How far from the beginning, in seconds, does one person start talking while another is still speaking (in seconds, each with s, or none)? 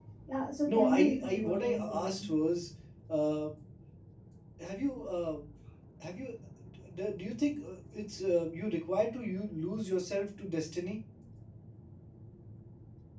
0.7 s